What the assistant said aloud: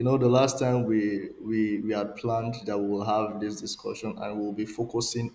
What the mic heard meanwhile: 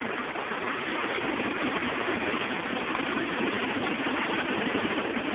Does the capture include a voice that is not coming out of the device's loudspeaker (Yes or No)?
No